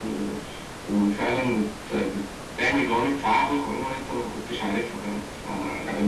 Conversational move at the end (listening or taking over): listening